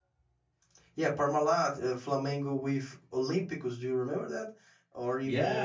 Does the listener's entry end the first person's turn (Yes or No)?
Yes